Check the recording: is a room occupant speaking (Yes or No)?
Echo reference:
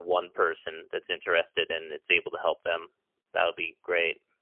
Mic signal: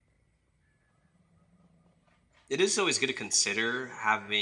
Yes